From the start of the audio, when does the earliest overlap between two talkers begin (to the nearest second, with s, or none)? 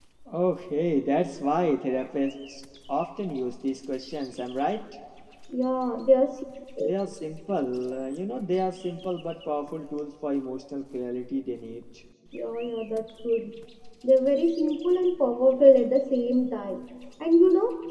none